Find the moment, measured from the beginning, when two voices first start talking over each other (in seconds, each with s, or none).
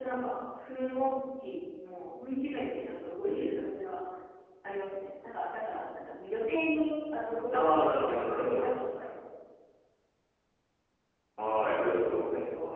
7.5 s